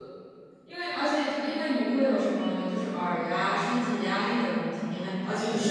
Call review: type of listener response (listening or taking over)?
listening